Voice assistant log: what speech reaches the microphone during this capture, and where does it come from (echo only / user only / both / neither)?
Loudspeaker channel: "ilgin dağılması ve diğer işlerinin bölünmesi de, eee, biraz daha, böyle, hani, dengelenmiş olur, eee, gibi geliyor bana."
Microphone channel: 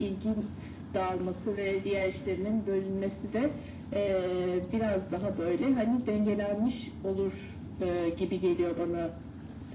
echo only